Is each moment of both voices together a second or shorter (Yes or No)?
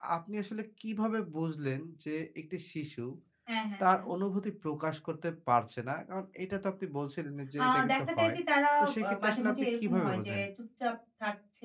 No